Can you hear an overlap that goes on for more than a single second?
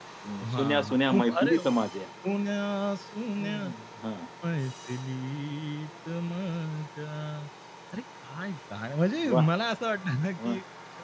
Yes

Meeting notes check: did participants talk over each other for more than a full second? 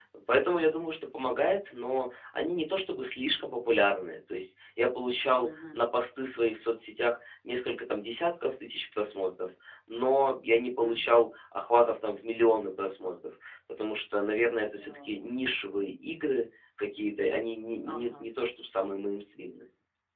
No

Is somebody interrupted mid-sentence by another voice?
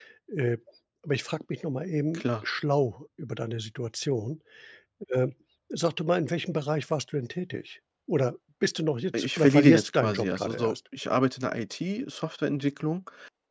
Yes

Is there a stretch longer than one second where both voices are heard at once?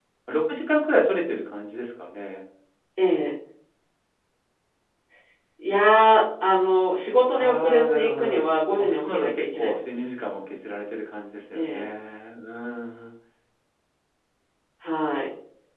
Yes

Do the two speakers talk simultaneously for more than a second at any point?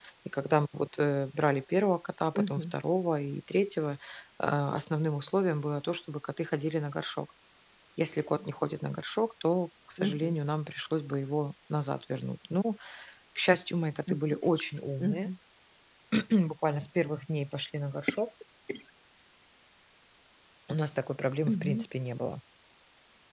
No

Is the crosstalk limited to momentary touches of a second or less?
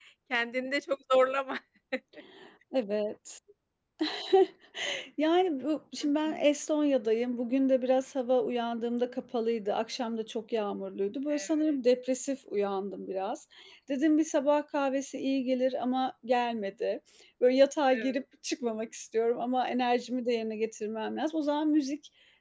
Yes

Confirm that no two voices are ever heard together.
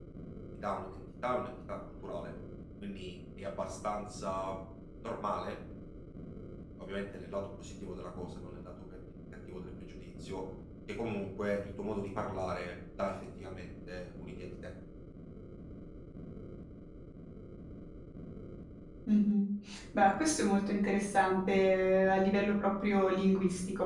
Yes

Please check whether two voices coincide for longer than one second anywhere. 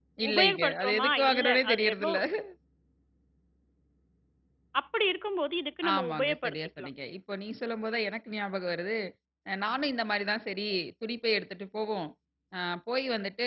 Yes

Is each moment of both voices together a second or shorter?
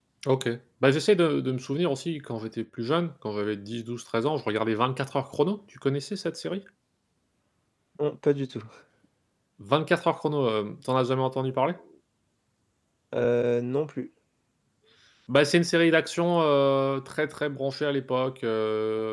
Yes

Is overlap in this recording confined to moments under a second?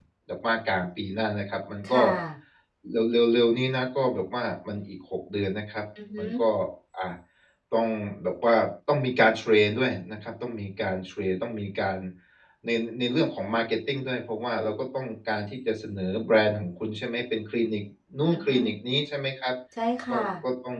Yes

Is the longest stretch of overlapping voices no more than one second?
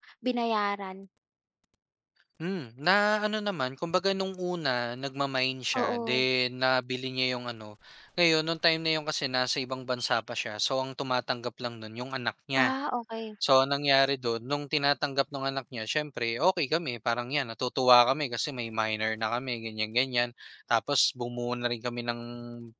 Yes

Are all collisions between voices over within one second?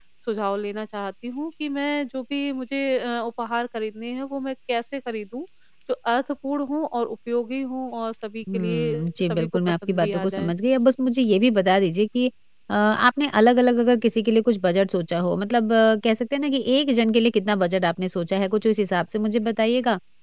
No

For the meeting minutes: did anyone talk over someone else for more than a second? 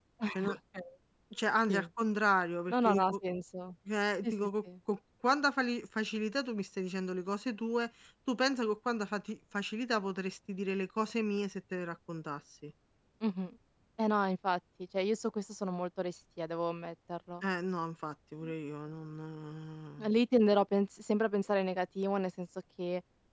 No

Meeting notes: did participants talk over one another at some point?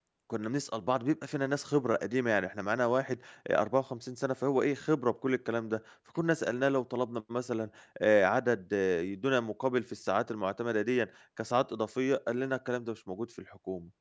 No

